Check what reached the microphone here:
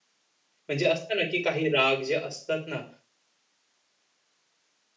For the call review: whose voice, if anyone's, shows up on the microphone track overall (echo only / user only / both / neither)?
user only